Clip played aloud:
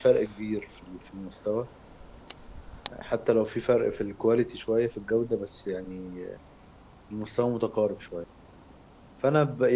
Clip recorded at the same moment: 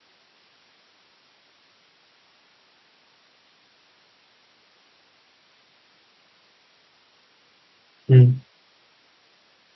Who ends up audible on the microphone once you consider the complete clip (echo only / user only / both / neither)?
user only